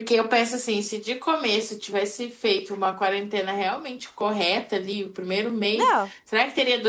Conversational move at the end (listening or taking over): listening